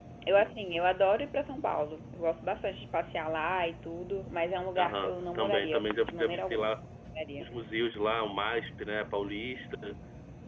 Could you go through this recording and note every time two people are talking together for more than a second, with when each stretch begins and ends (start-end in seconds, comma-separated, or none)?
4.8-6.7